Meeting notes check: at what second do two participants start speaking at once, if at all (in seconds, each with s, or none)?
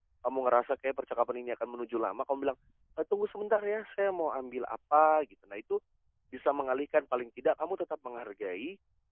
none